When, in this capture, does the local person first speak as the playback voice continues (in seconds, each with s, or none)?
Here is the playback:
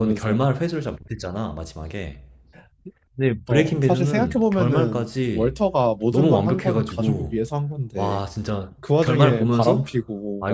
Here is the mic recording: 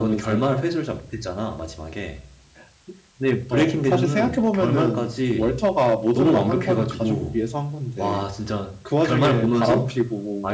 none